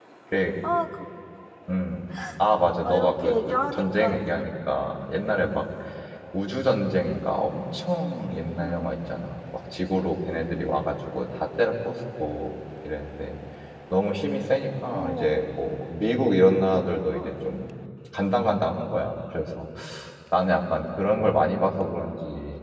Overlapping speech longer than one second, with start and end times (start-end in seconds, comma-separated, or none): 2.8-4.5